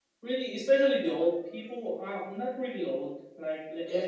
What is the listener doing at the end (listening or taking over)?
listening